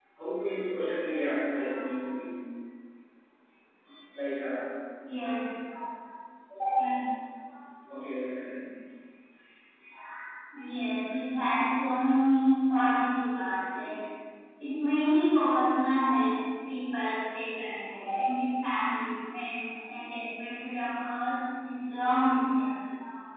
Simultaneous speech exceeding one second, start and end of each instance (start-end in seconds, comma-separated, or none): none